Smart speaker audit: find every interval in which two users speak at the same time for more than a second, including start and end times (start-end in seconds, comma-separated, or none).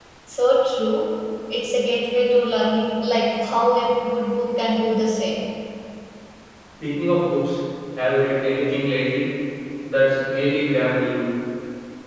none